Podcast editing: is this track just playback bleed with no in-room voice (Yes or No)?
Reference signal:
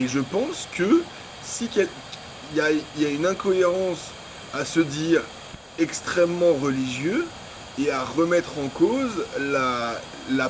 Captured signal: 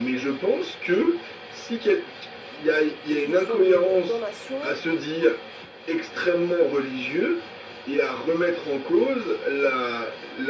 No